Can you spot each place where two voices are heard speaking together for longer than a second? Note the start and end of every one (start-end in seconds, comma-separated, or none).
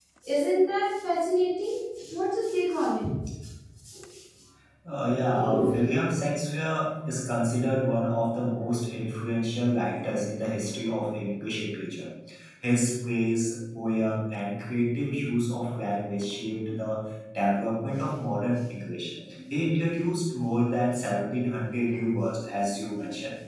none